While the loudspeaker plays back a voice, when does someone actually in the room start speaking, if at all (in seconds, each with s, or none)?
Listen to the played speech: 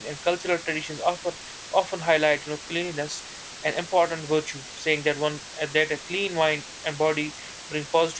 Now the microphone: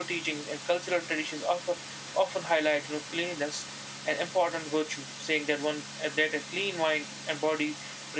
none